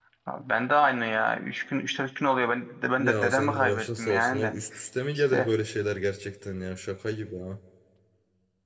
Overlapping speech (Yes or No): Yes